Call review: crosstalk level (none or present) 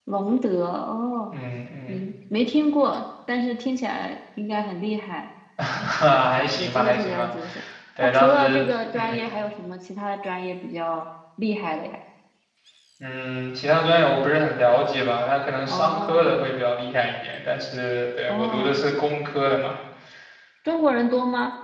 present